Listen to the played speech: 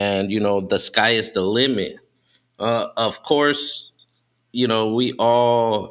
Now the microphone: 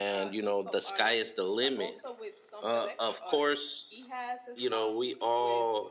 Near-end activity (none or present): present